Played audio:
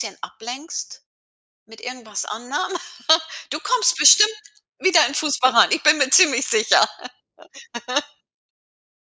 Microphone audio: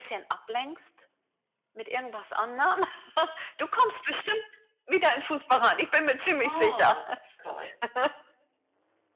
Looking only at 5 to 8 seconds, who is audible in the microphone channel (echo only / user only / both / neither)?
both